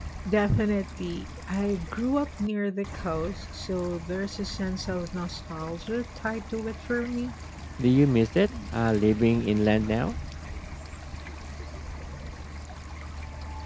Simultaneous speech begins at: none

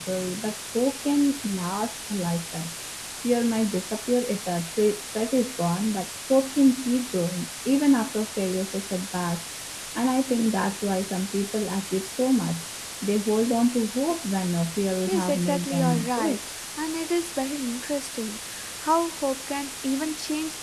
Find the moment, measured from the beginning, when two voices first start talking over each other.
15 s

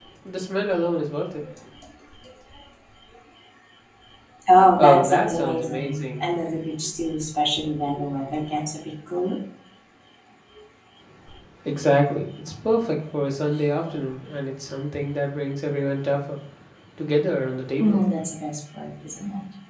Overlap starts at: 5 s

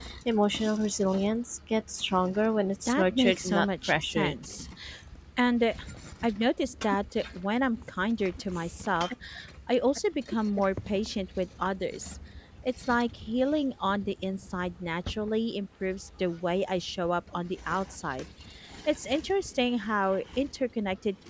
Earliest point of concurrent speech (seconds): 3 s

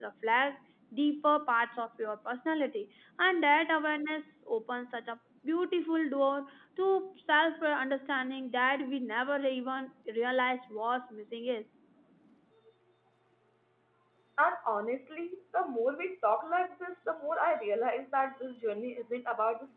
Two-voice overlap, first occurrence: none

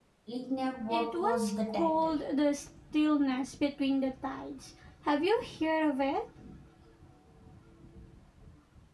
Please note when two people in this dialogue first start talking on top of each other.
1 s

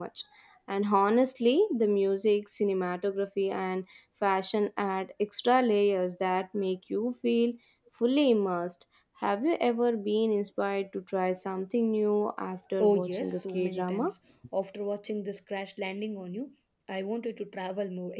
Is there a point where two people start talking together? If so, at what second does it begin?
13 s

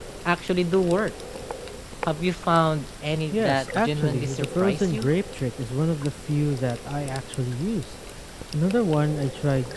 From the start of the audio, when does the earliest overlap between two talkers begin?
3 s

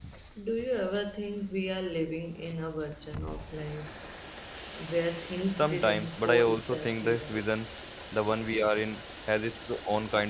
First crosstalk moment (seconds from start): 6 s

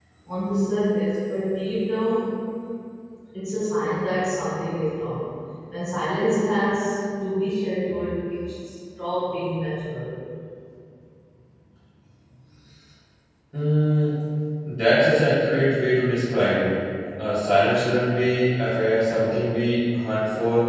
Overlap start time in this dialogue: none

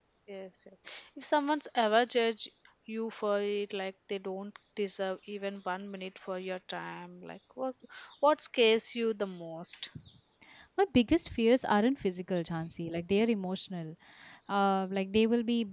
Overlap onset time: none

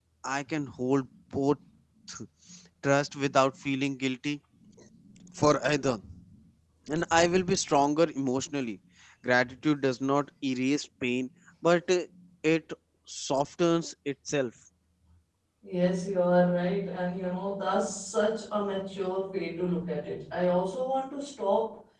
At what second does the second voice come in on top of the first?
none

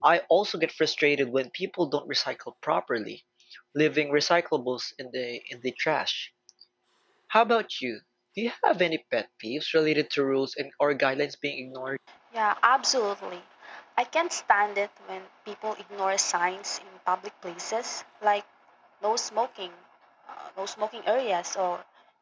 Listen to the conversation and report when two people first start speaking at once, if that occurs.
none

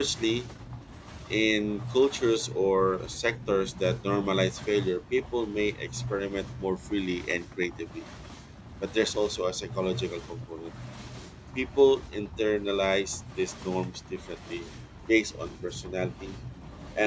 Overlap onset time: none

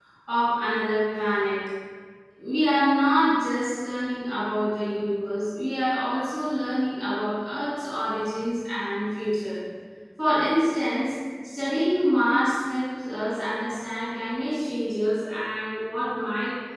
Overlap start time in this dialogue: none

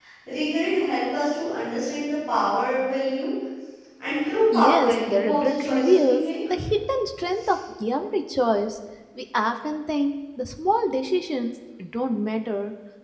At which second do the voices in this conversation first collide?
5 s

